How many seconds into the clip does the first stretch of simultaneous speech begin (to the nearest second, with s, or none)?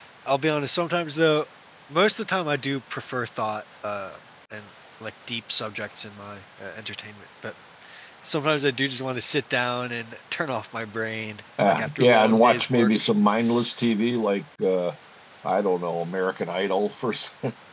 12 s